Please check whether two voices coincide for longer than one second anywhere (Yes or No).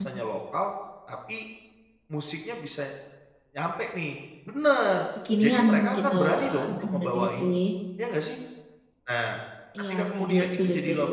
Yes